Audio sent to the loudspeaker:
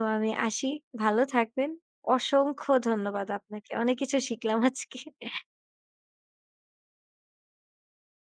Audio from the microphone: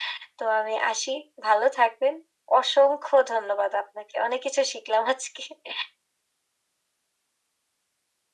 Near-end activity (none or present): none